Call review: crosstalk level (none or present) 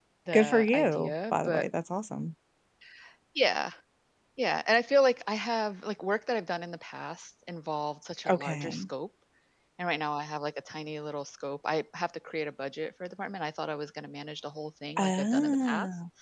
present